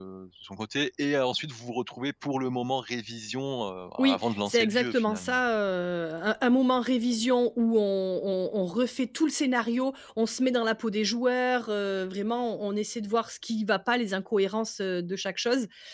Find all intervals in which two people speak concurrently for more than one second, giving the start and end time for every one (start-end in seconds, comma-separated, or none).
4.0-5.4